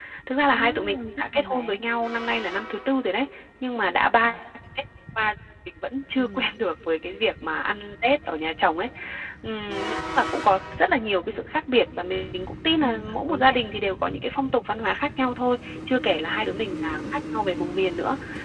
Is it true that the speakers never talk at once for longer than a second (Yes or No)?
No